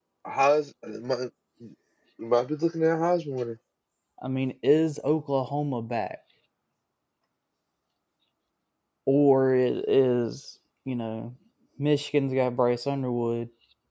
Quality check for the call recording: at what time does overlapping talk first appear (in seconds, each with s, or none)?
none